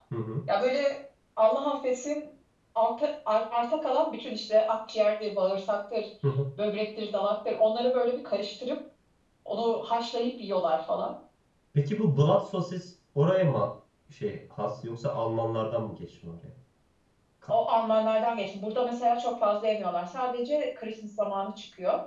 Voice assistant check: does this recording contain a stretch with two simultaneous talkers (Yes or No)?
No